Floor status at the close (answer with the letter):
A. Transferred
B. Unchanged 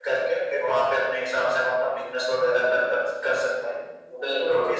B